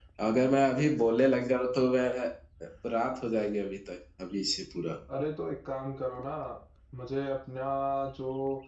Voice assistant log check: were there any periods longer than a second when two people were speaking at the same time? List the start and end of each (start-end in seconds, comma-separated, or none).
none